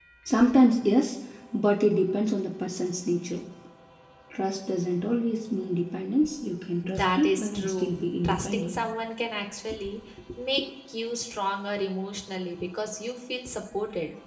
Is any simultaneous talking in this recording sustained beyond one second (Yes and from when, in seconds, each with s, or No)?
Yes, from 6.8 s